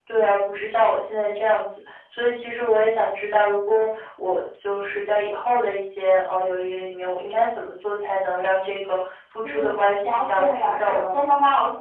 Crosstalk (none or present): present